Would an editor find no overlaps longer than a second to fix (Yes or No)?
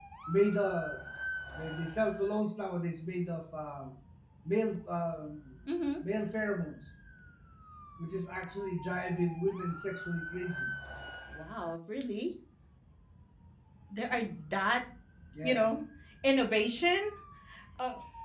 Yes